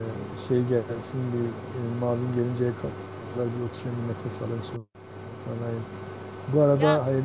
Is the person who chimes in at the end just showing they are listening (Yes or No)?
Yes